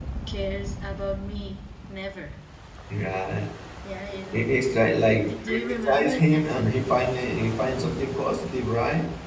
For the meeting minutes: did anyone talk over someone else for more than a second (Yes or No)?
Yes